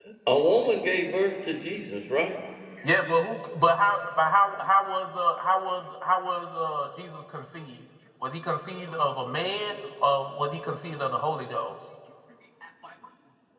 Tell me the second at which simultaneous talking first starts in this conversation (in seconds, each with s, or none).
none